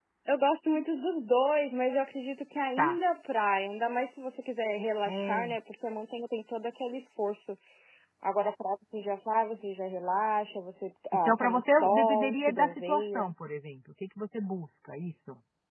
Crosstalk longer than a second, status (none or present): present